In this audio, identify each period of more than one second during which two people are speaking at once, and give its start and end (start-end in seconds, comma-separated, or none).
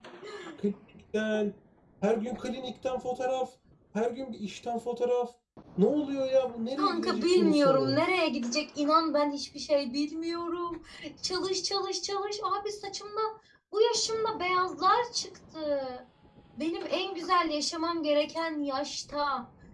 6.8-8.0